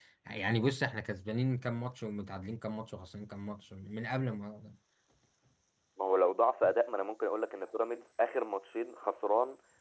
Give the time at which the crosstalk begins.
none

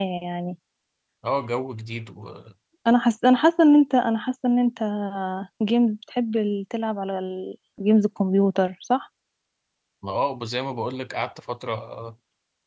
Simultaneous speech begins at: none

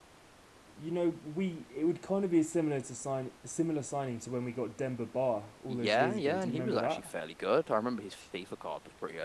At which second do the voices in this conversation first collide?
5.7 s

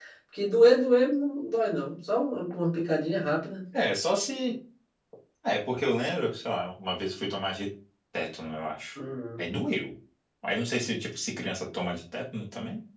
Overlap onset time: none

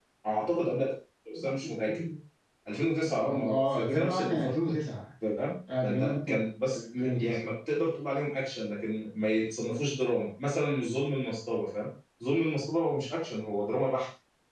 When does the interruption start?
3.2 s

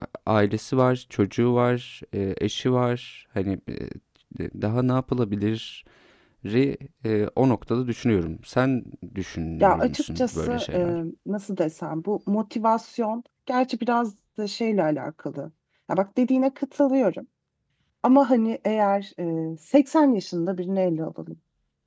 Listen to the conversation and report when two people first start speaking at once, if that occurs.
9.6 s

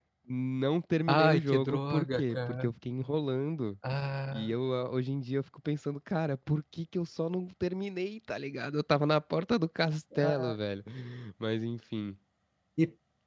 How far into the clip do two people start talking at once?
1.1 s

